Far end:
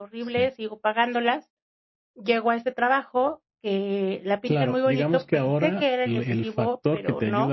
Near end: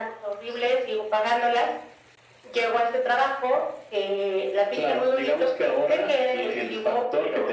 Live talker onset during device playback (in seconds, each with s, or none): none